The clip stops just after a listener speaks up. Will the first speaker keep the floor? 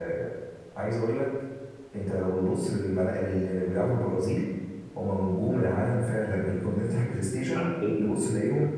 Yes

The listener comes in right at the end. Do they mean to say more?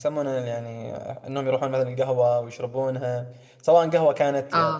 No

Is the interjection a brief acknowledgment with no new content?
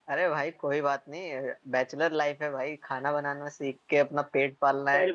No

